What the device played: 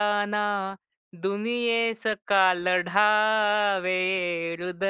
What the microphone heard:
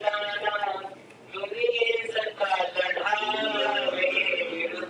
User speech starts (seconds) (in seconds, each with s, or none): 3.2 s